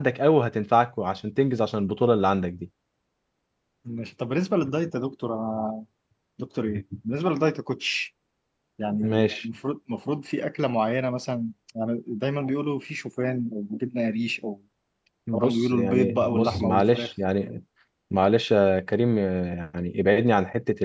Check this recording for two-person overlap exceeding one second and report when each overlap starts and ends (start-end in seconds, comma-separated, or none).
15.3-17.1